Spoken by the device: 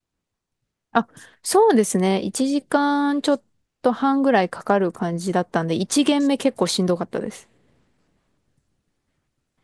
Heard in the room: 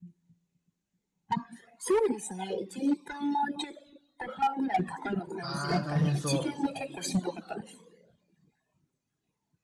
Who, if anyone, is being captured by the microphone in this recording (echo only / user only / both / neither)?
both